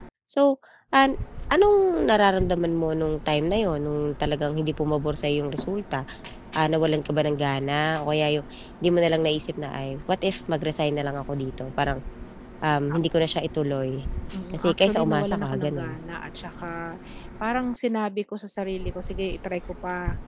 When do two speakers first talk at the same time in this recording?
14.5 s

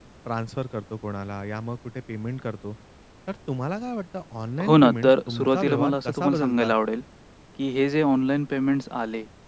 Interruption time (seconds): 4.6 s

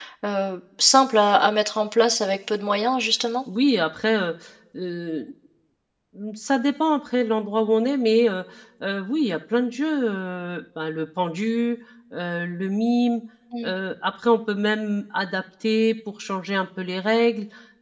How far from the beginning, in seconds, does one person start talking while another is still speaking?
none

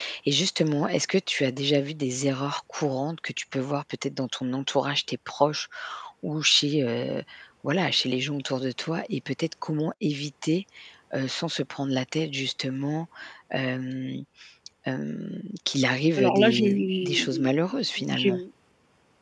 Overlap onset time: 16.2 s

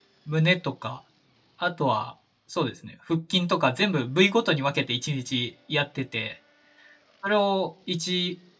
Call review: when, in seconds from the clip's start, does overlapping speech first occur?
none

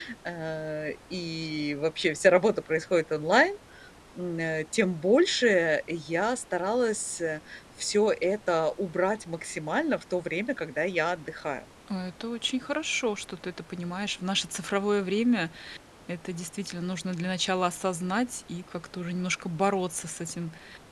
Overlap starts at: none

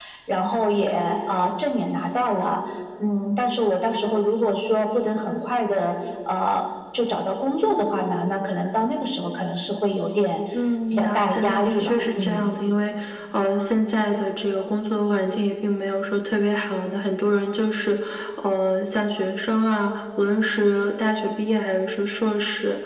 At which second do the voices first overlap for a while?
10.9 s

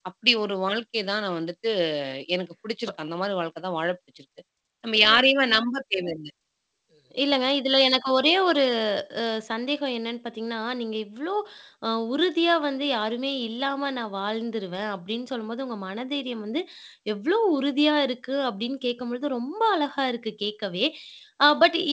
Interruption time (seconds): none

